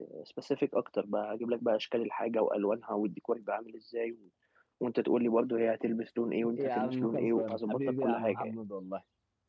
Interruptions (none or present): present